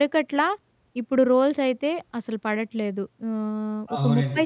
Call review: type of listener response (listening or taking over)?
taking over